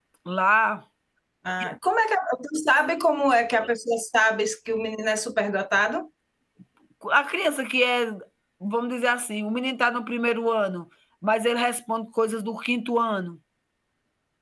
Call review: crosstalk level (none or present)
none